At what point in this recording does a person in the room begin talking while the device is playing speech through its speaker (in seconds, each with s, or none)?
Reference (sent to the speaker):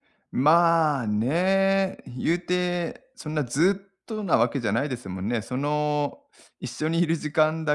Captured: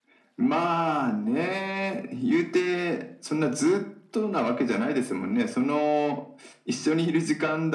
none